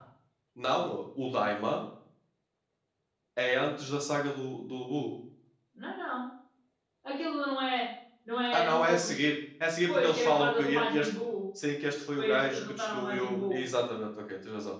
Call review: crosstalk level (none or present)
present